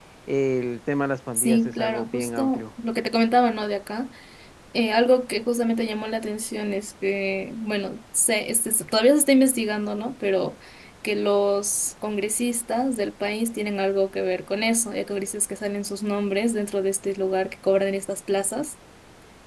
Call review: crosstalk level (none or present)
present